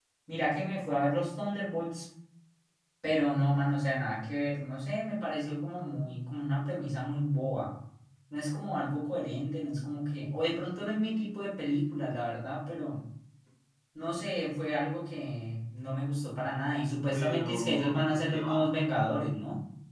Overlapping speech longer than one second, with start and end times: 17.1-18.7

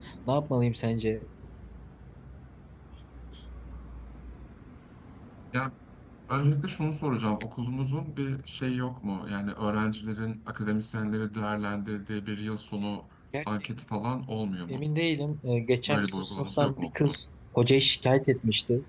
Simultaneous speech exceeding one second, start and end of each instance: 15.9-17.2

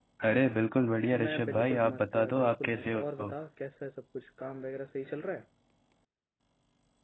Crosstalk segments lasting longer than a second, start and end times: 1.3-3.3

